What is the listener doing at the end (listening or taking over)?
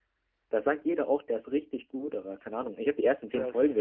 listening